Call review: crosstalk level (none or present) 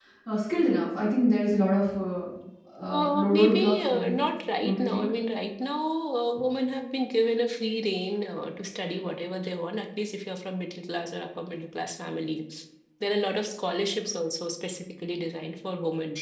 present